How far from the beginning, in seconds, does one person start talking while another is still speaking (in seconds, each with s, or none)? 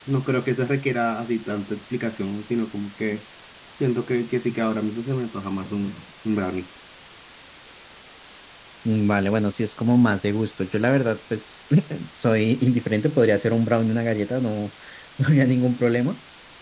none